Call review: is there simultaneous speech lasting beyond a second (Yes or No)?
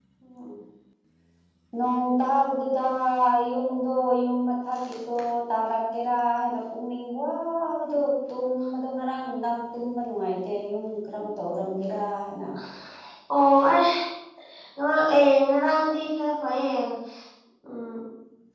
No